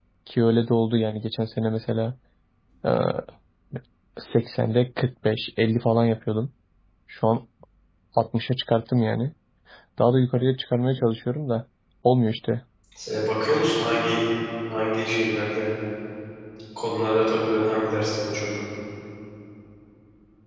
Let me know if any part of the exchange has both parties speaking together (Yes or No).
No